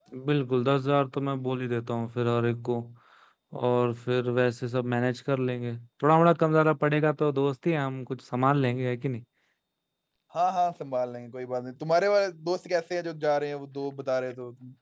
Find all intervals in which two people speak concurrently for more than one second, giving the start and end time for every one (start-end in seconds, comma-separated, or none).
none